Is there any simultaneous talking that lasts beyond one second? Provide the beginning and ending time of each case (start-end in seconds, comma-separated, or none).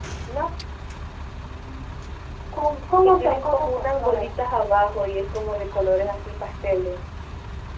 3.0-4.3